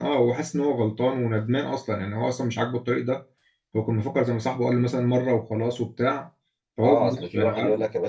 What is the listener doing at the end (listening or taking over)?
taking over